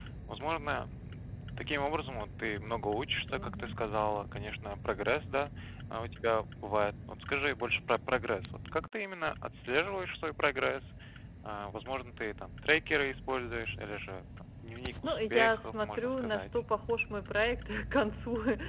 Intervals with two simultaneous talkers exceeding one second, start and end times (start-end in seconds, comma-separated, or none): 15.0-16.6